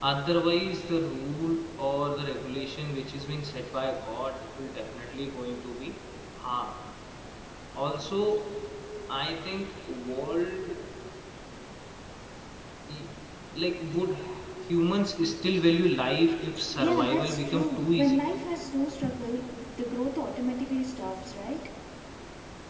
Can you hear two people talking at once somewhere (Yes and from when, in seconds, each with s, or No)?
Yes, from 16.8 s